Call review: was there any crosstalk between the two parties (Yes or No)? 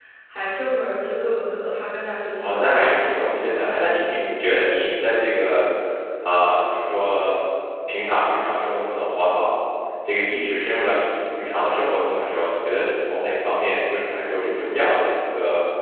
Yes